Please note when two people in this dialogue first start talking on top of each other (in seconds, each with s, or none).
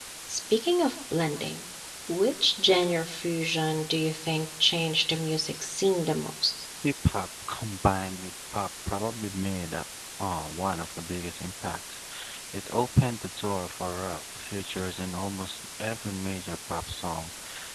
none